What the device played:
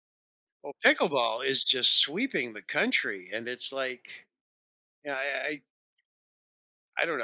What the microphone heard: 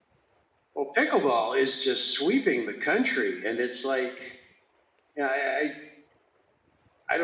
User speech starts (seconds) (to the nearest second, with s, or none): none